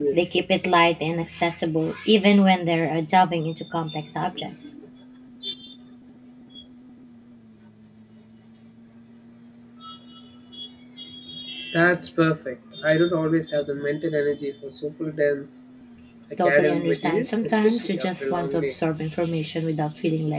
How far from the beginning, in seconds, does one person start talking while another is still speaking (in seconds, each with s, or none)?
16.4 s